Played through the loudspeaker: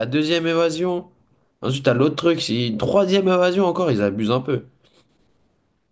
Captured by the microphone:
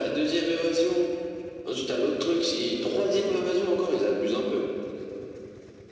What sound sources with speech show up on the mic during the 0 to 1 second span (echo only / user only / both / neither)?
echo only